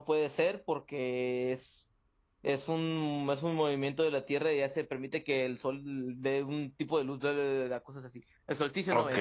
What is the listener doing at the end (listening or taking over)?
taking over